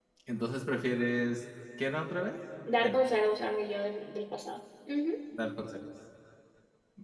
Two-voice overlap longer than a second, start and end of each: none

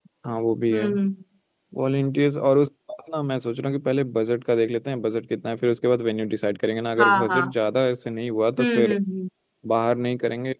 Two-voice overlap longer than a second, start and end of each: none

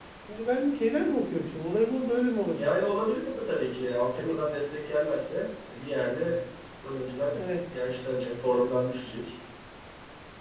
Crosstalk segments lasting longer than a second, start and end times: none

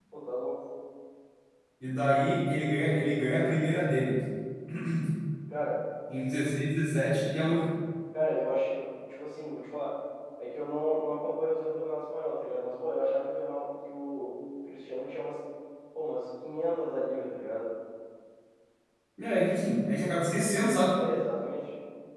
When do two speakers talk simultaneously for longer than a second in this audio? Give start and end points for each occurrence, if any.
none

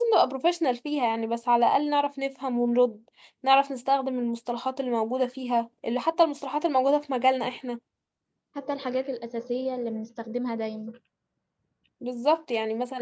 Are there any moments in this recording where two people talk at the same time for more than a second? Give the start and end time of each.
none

